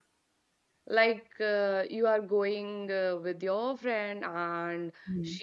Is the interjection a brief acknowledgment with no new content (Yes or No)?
Yes